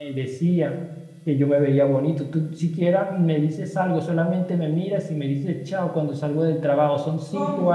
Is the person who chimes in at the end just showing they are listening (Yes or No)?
Yes